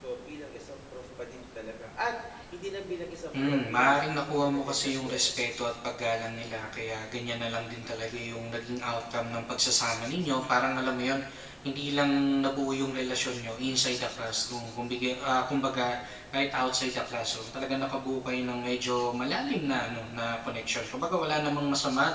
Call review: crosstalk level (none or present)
present